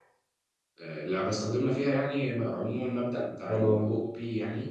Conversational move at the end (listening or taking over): listening